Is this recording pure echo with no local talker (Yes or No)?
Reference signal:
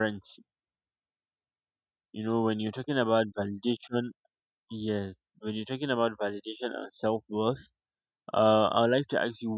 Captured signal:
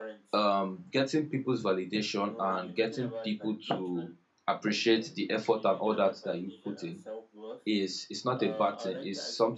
No